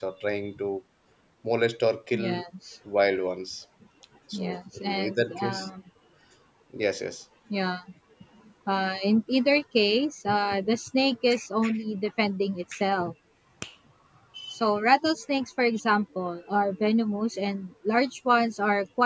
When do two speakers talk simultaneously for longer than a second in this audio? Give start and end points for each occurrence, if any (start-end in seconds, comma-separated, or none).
4.3-5.7